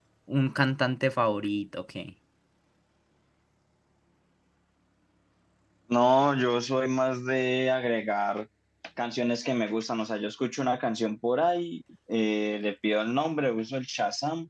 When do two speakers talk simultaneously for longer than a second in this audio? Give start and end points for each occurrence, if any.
none

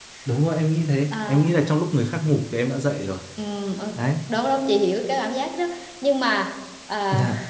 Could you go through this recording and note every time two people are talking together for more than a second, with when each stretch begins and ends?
none

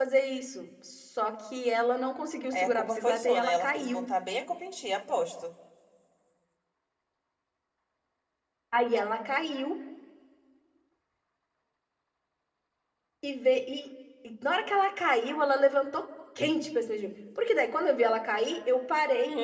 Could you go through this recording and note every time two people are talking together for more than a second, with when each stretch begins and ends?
2.5-4.1

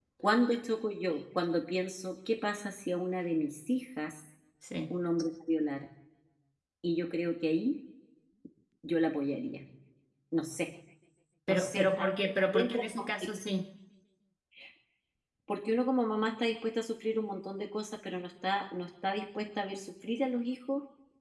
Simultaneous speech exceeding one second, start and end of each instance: 11.5-13.3

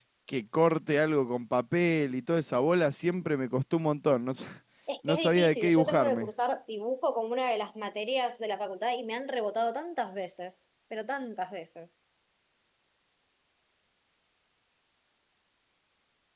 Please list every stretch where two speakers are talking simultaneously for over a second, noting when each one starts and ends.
5.1-6.3

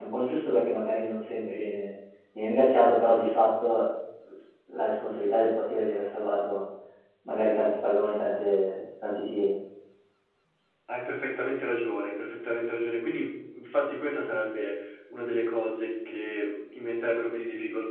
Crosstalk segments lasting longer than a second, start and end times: none

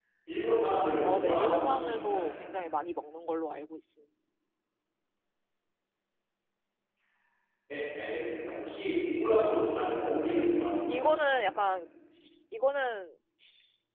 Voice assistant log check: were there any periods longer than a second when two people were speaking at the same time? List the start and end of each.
1.0-2.2

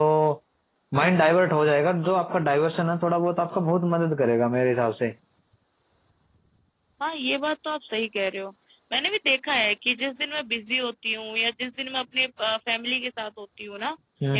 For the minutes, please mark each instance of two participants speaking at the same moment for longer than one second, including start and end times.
none

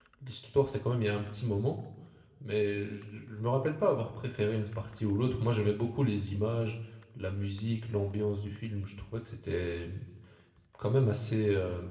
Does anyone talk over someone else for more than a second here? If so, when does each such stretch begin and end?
none

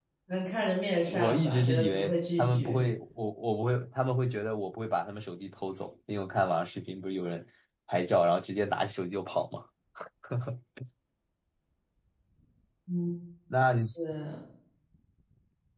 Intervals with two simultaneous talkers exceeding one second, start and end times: 1.1-2.8

